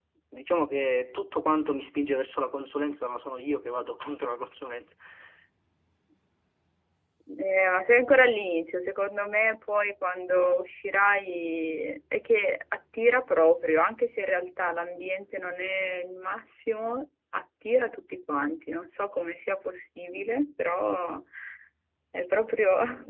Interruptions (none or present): none